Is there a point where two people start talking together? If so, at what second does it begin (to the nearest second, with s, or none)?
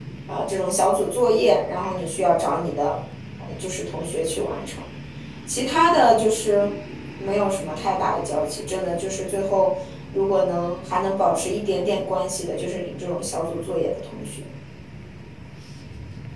none